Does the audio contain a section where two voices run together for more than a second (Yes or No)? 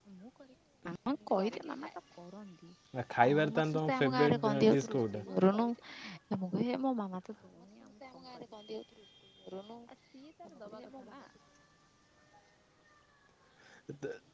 Yes